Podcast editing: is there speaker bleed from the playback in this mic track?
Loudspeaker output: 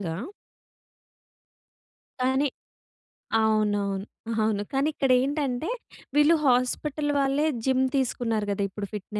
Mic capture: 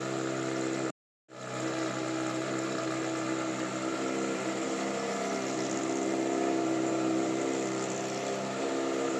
No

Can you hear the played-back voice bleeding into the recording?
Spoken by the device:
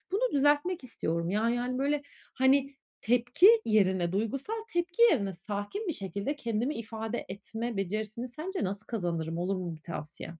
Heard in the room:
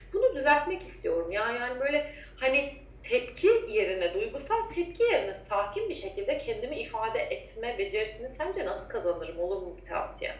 Yes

